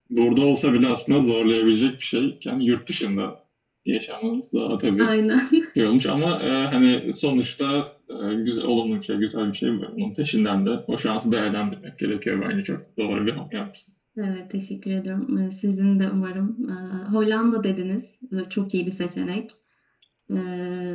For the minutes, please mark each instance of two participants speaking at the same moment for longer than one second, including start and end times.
none

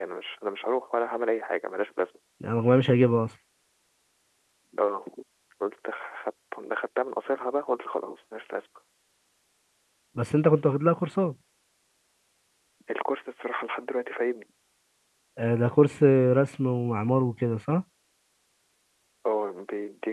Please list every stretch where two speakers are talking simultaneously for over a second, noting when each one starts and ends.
none

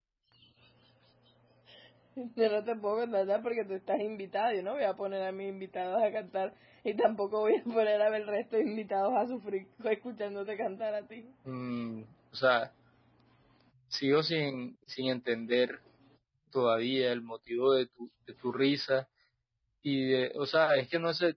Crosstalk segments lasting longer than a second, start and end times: none

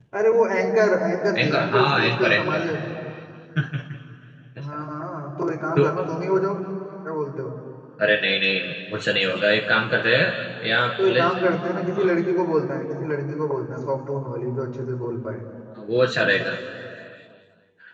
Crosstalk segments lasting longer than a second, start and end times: 1.4-2.7

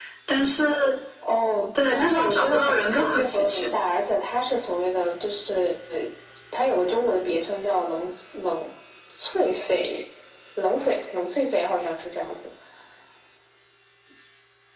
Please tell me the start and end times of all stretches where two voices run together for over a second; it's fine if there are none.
1.9-3.7

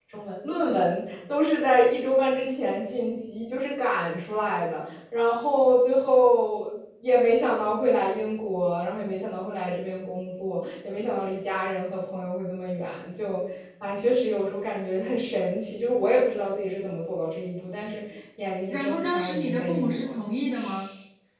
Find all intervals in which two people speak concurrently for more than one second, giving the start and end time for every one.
18.7-20.2

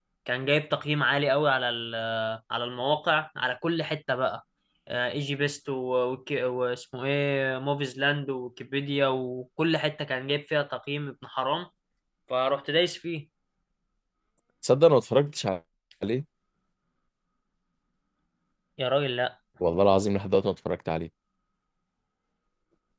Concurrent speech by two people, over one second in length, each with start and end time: none

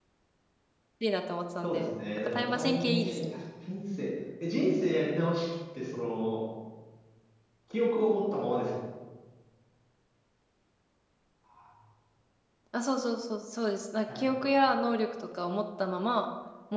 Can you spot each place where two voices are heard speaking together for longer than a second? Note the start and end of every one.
1.6-3.4

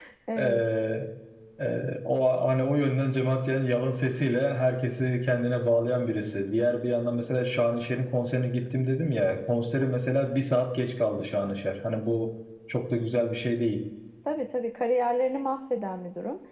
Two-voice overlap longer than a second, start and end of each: none

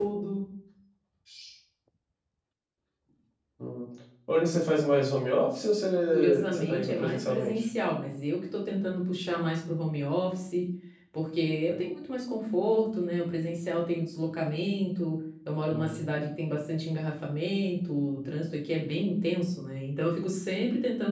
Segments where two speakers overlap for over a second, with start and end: 6.1-7.7

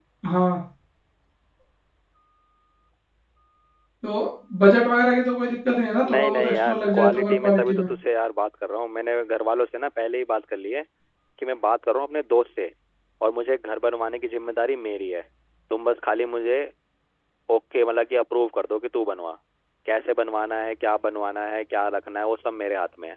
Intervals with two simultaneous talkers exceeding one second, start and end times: 6.1-7.8

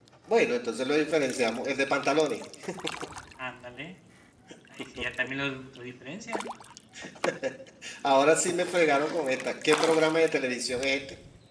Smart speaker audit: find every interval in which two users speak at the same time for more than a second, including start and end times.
none

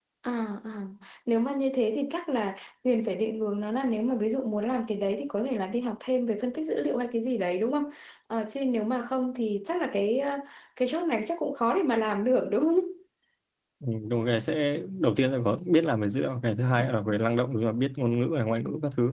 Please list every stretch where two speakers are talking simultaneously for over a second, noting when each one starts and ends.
none

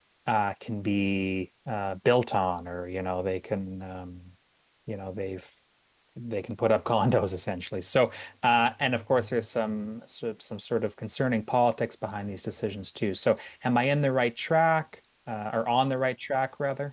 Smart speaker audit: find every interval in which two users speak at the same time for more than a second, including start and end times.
none

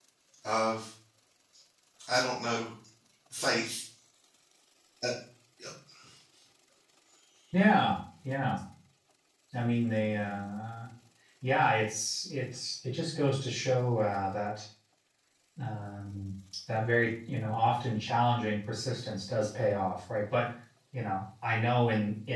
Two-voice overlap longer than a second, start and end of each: none

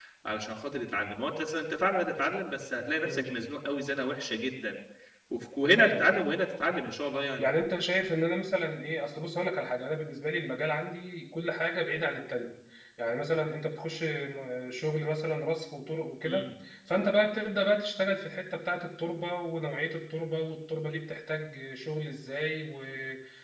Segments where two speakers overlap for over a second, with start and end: none

